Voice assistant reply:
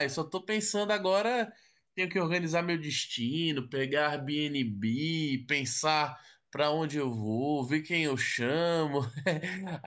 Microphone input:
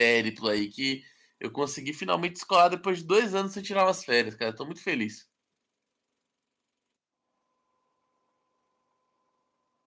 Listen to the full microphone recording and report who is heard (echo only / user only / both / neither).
user only